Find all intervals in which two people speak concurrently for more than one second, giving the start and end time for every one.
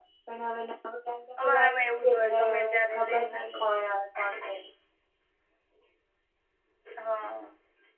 1.4-3.6

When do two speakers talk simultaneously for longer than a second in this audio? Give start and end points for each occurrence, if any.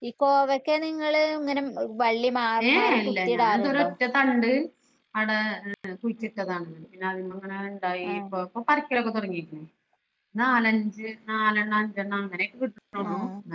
2.7-3.9

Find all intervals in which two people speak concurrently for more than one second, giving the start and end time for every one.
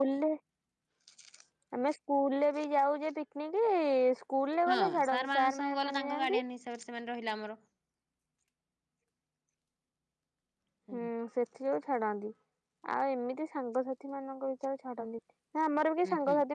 4.7-6.4

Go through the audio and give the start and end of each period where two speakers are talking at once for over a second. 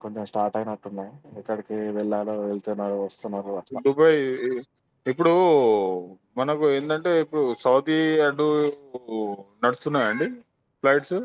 none

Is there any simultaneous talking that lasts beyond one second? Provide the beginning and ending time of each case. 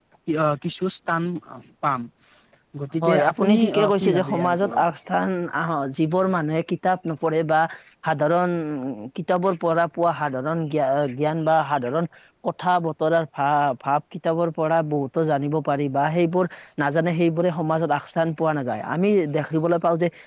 3.0-4.8

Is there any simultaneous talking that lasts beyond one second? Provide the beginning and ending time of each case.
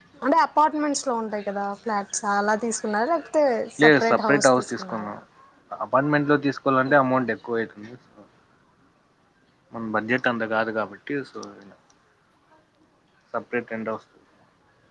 3.8-5.1

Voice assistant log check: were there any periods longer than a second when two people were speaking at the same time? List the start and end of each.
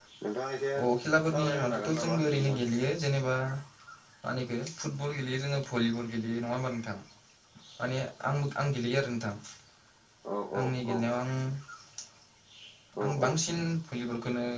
1.3-2.6

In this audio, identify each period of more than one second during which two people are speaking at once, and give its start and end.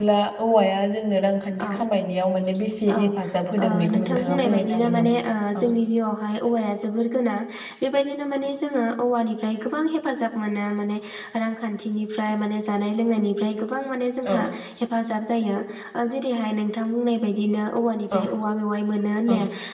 3.6-5.1

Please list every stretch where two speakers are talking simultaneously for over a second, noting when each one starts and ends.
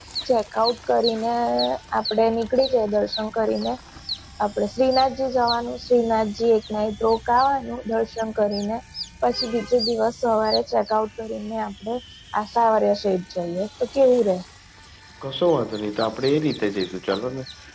none

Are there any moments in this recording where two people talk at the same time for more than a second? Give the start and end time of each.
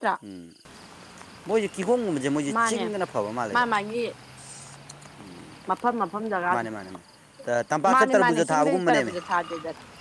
7.9-9.1

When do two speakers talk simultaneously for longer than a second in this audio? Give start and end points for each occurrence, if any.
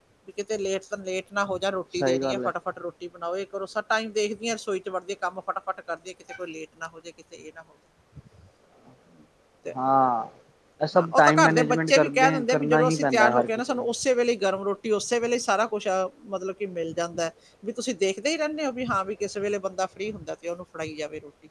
10.9-13.8

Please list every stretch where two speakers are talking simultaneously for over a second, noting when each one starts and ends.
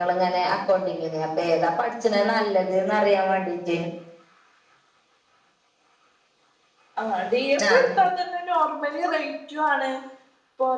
none

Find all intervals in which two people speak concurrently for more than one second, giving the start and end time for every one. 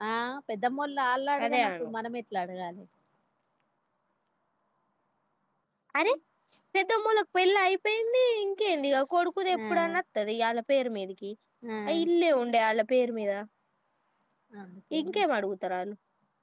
none

